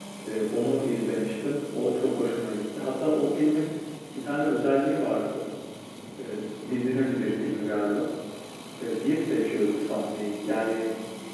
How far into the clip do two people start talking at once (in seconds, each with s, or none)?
none